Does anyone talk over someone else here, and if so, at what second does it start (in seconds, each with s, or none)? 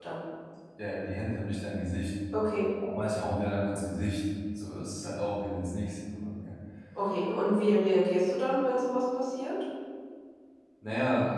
none